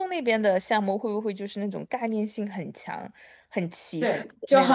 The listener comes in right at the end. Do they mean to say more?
Yes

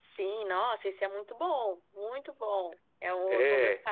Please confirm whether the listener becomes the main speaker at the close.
No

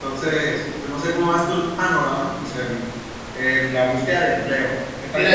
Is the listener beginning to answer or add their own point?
Yes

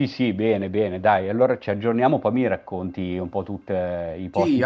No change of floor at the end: No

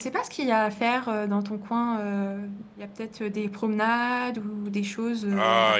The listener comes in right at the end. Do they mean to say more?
Yes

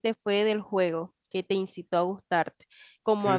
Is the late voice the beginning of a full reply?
No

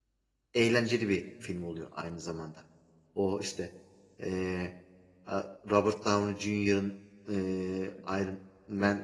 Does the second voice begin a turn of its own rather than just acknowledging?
No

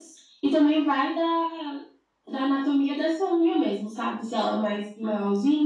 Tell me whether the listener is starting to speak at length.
No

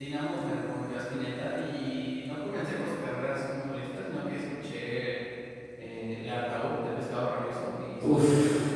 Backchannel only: No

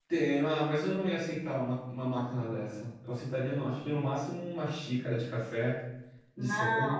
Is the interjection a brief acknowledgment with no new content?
No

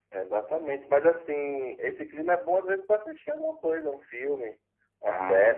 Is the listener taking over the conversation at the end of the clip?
Yes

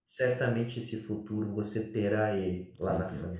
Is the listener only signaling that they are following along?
No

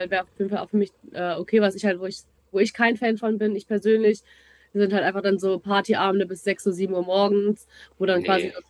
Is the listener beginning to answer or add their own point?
No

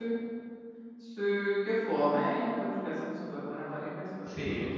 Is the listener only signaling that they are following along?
No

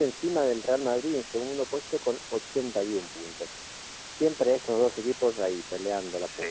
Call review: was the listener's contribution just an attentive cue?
No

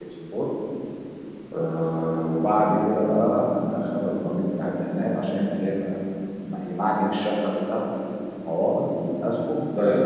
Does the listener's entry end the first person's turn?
Yes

